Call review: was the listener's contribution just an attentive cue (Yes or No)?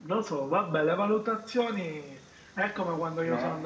Yes